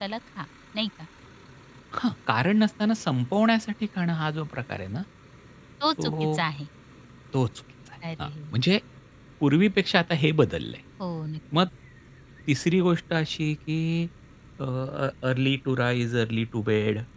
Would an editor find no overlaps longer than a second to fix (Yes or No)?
Yes